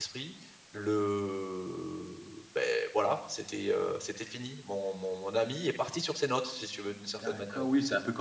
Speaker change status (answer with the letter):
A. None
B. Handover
B